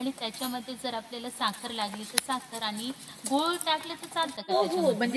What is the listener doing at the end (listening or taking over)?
taking over